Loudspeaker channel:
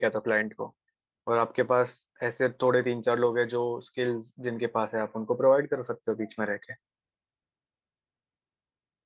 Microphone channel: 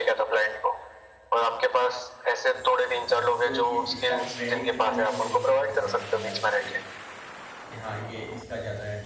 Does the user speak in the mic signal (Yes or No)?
Yes